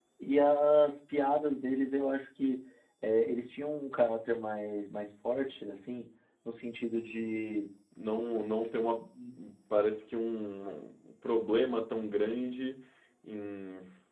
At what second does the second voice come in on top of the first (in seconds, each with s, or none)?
none